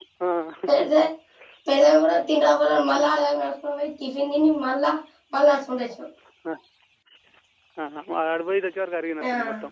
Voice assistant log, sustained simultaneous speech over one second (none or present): none